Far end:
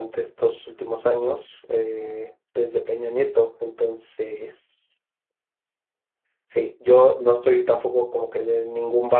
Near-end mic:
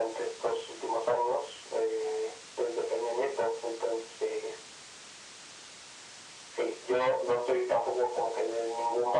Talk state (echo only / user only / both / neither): echo only